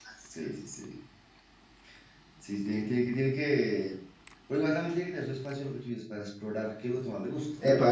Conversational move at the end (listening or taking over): taking over